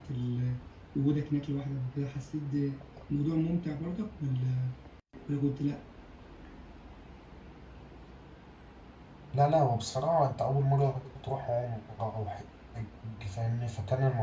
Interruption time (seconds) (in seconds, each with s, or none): none